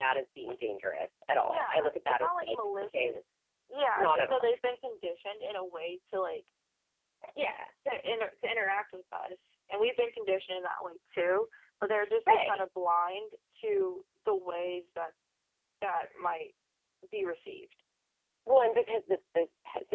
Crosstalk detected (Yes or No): Yes